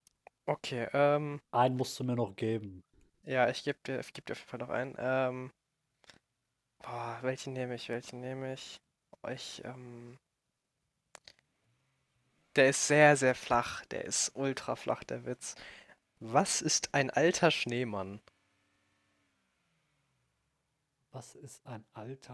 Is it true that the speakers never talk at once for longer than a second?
Yes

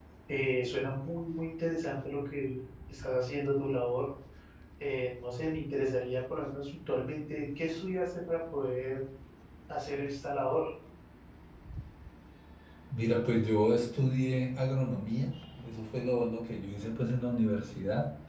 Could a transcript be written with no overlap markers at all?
Yes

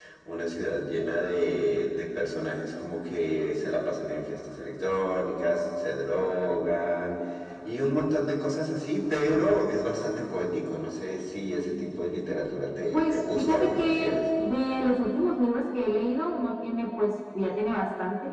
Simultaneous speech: Yes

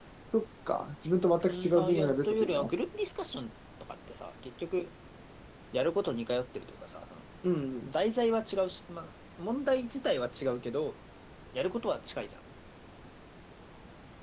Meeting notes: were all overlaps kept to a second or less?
No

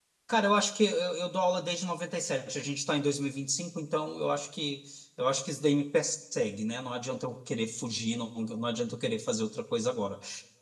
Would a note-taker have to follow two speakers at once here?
No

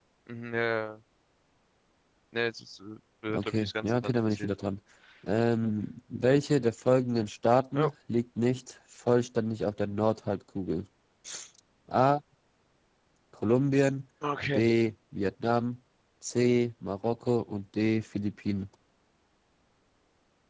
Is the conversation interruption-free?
No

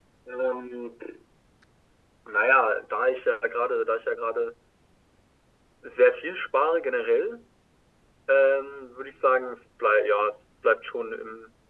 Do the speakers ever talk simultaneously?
No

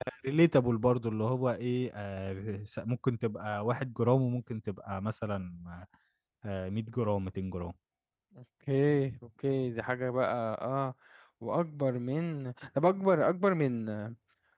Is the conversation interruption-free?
Yes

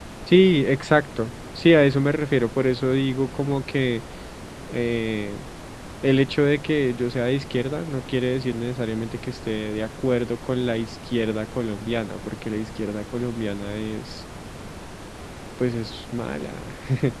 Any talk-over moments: No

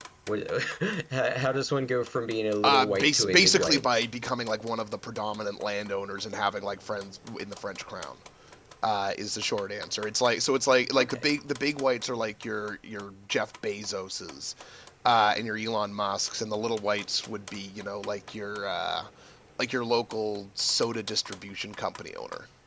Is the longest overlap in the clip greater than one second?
Yes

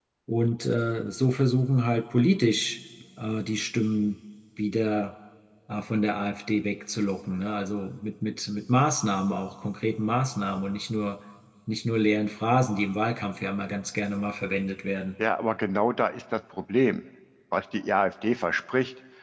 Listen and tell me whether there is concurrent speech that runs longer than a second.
No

